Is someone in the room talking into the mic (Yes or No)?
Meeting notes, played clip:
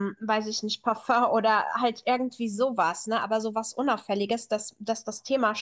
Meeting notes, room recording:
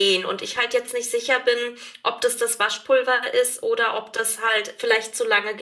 Yes